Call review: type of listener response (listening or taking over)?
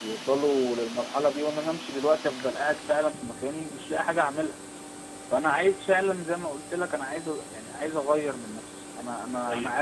taking over